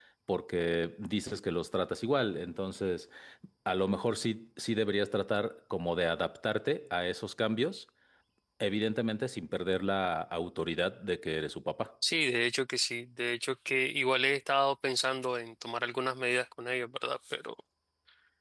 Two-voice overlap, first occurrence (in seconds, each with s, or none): none